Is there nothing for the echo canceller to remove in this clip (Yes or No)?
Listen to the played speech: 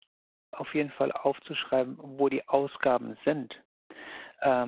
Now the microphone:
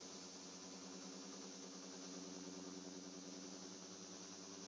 Yes